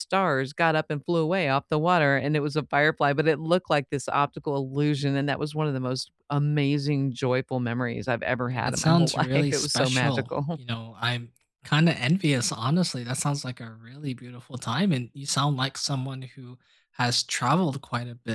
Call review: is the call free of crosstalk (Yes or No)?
No